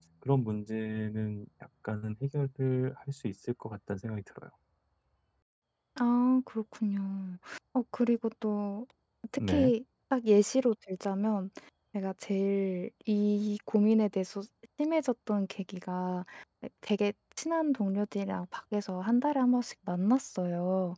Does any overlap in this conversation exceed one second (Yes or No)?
No